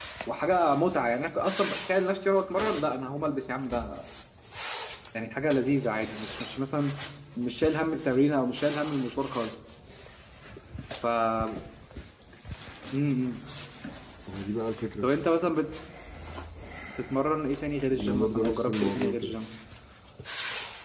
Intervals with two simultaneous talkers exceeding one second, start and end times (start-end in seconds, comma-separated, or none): 17.9-19.4